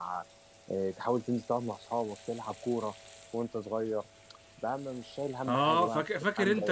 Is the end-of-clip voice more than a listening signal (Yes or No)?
Yes